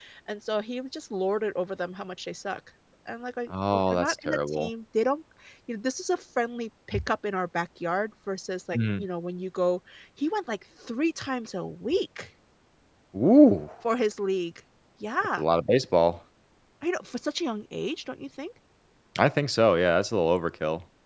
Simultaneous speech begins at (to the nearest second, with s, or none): 4 s